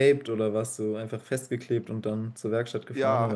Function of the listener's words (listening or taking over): taking over